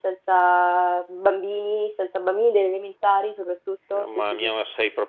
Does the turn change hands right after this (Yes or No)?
Yes